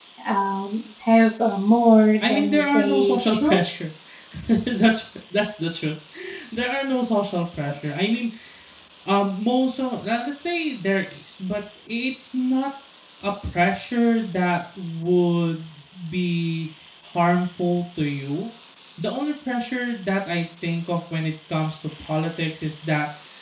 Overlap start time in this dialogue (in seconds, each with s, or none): 2.2 s